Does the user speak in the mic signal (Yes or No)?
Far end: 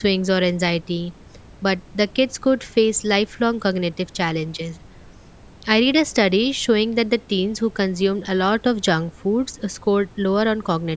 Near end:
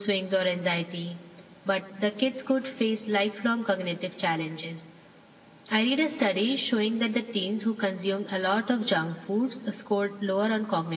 No